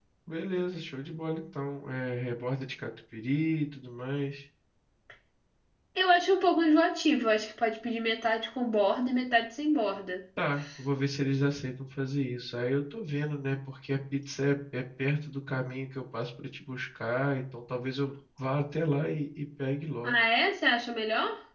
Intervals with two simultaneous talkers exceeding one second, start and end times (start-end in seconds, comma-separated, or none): none